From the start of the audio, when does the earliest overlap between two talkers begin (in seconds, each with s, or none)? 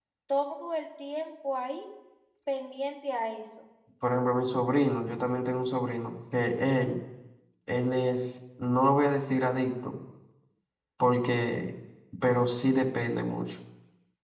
none